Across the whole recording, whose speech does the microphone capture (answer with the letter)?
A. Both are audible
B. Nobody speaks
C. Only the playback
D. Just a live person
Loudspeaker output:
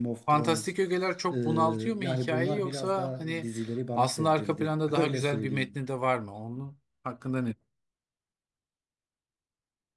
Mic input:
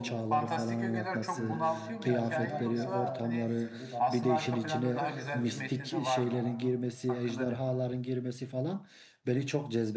A